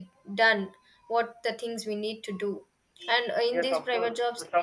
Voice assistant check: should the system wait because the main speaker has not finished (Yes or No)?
No